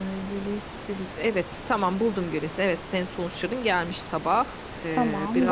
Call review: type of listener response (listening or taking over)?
taking over